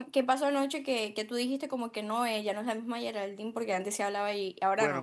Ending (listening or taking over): taking over